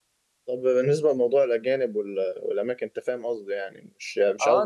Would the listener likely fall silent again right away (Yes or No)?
No